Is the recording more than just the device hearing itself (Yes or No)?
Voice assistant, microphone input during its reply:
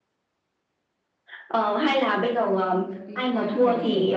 Yes